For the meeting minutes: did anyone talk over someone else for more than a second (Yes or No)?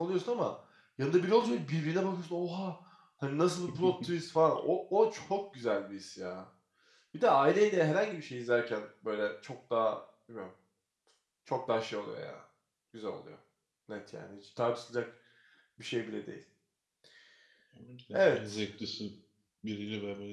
No